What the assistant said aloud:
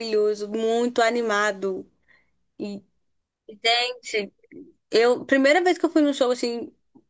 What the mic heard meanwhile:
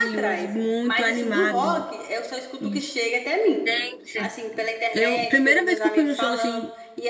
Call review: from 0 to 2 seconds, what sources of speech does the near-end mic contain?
both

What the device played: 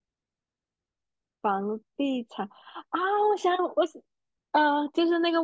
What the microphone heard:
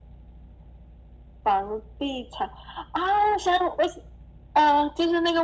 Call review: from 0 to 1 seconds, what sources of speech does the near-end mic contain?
neither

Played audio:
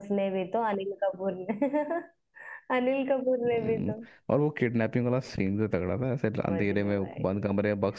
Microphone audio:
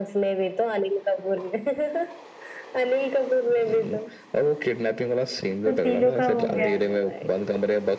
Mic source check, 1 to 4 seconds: echo only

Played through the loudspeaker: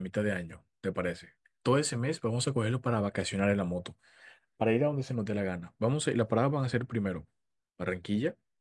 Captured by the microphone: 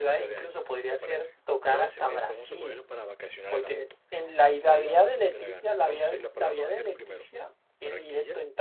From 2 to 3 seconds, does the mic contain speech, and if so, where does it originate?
both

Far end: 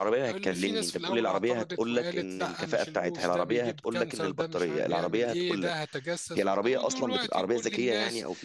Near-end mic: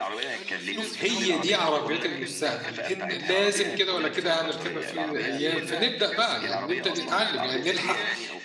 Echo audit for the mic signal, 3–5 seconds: both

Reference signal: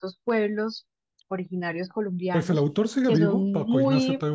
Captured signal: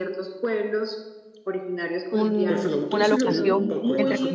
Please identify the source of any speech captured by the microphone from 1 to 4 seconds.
both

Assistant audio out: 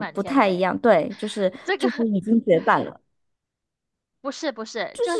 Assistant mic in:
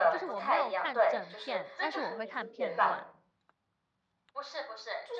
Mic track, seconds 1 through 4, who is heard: both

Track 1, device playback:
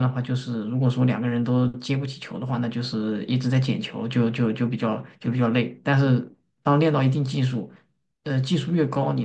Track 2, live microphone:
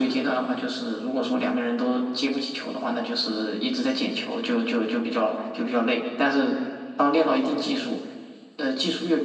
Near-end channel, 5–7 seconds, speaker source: echo only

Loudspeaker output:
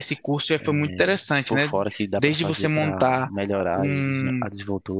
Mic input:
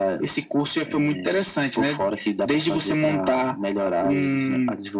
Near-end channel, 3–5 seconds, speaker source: echo only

